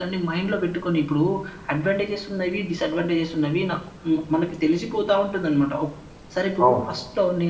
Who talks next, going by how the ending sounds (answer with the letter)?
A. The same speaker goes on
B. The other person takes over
A